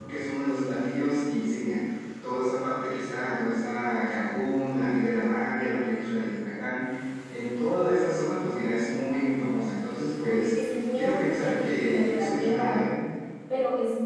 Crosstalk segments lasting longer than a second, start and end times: 10.9-12.8

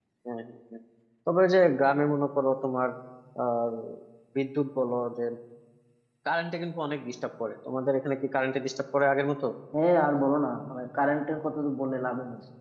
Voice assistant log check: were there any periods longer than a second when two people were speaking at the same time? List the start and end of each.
none

